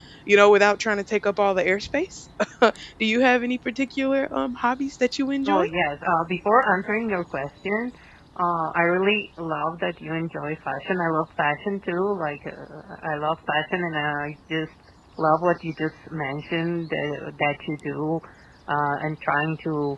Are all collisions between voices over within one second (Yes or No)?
Yes